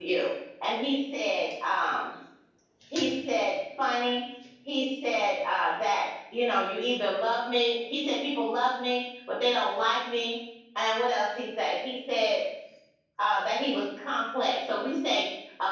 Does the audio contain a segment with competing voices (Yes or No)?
No